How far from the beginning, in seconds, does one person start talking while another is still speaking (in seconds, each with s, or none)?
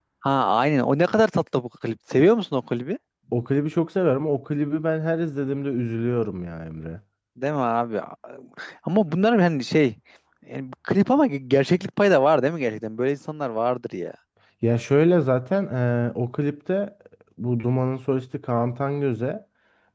none